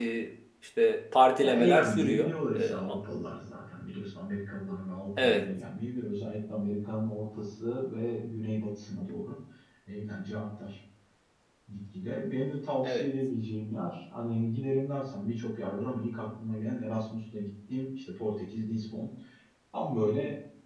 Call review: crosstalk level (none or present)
present